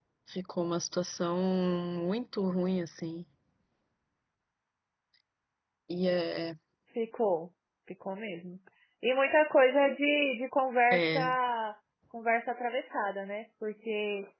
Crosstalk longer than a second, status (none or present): none